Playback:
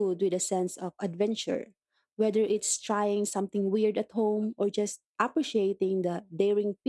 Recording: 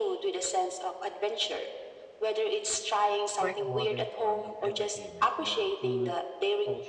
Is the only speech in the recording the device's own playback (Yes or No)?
No